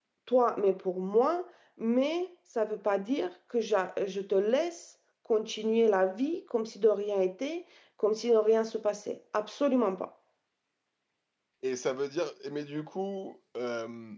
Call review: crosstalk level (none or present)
none